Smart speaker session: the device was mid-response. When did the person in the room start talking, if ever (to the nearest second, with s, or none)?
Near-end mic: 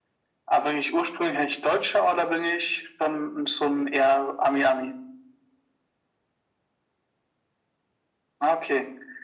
none